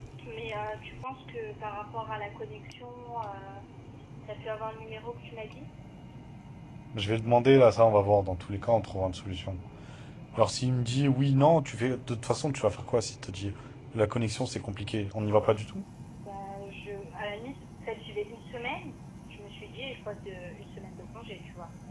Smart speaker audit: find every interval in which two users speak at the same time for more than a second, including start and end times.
none

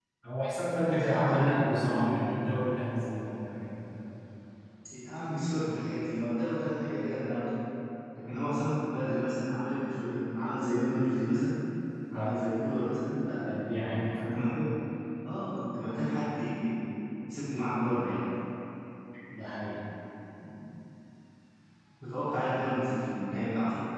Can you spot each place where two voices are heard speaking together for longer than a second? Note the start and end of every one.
0.7-2.2

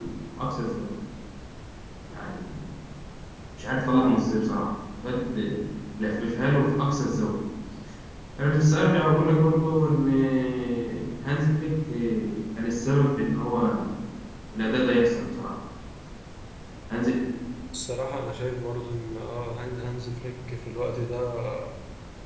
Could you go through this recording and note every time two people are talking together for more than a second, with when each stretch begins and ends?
none

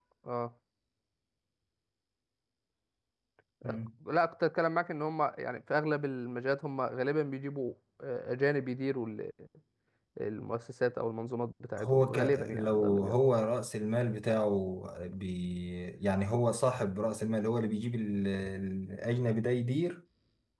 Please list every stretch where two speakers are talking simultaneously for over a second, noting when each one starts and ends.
11.8-13.2

